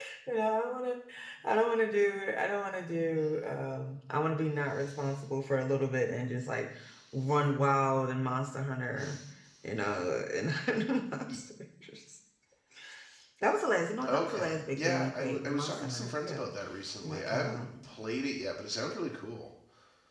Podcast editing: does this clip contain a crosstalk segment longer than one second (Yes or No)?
Yes